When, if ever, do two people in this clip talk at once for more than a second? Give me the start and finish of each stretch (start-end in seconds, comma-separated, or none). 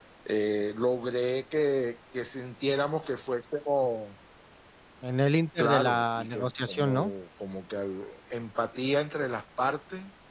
5.6-7.1